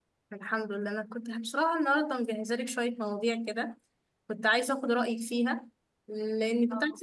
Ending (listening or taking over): listening